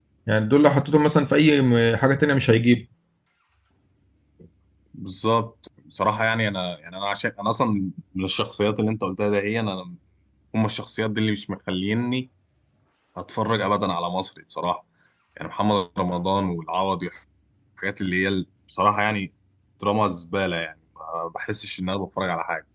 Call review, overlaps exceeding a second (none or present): none